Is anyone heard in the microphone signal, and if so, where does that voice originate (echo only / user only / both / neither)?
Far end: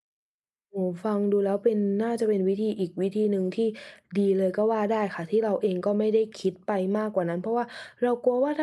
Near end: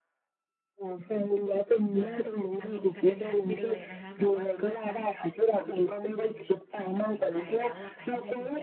both